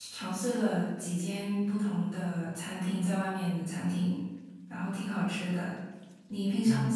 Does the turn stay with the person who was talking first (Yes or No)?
No